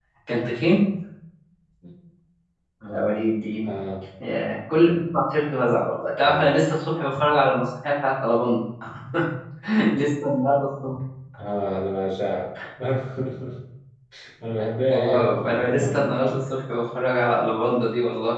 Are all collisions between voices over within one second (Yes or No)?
No